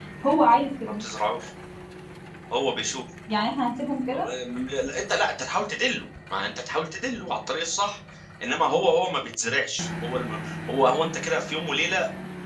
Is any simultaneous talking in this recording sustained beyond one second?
No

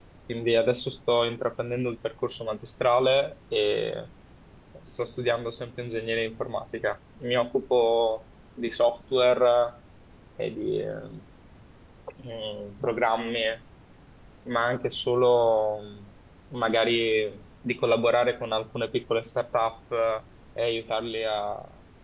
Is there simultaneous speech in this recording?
No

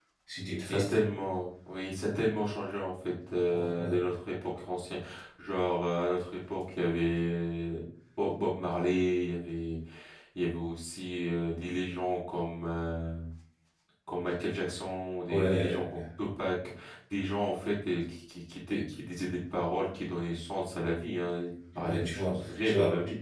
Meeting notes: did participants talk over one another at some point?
Yes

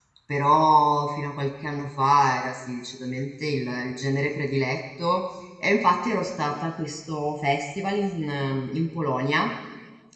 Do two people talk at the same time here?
No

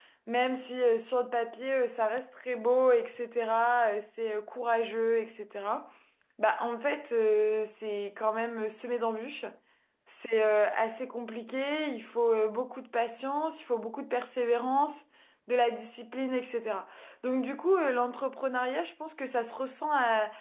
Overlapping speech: No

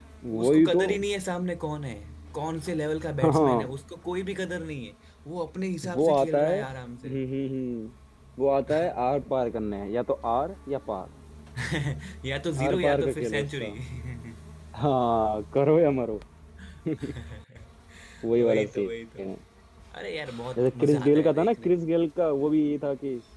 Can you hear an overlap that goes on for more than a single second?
Yes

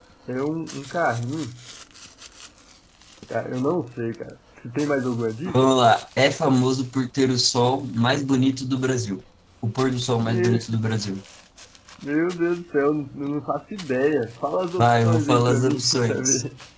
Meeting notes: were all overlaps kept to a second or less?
No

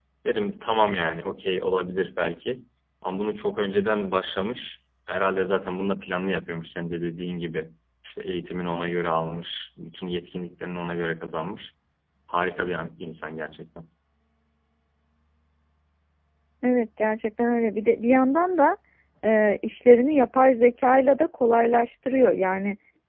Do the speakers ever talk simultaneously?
No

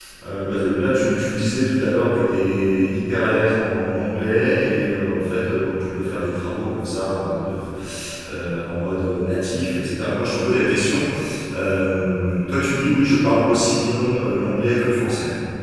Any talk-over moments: No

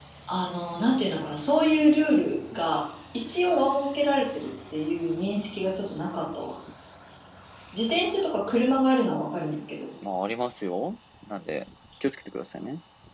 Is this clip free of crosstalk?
Yes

